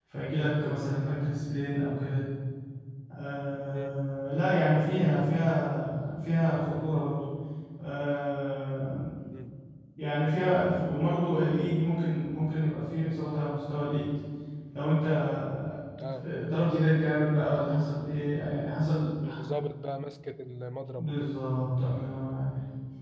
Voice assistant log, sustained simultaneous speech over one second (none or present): none